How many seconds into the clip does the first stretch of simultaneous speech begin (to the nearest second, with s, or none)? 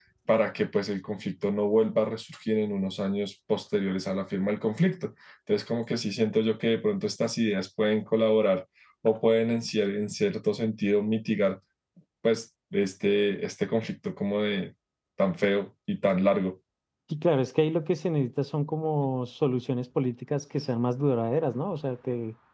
none